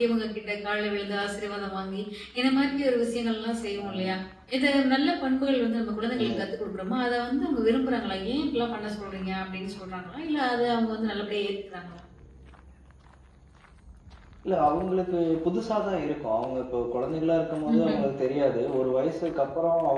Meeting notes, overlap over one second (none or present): none